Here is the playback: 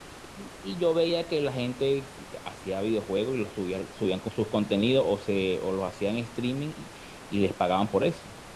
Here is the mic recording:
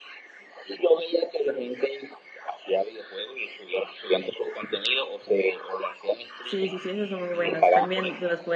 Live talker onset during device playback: 6.4 s

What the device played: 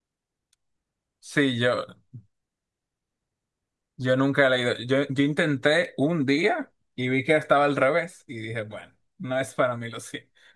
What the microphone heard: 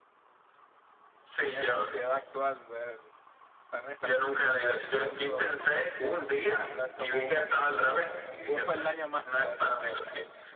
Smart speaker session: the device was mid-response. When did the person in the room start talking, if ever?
1.5 s

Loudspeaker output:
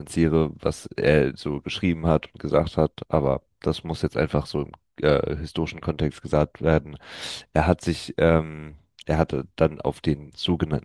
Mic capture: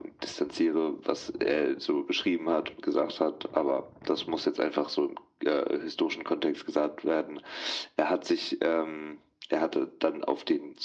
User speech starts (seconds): none

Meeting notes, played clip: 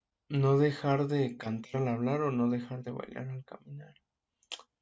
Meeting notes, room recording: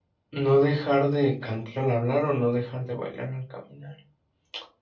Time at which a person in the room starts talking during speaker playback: none

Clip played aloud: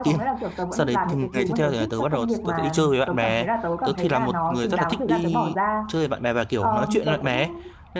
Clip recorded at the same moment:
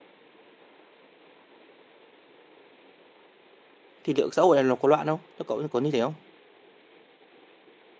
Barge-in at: 4.0 s

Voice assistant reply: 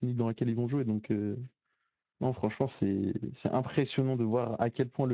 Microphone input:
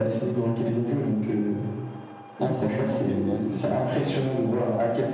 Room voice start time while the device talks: 2.4 s

